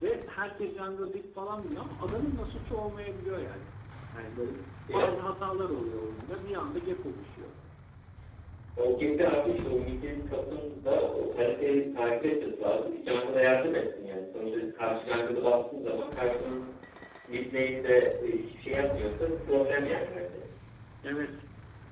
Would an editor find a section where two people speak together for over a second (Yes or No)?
No